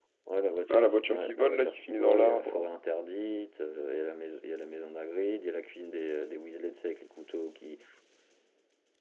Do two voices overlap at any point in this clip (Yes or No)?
Yes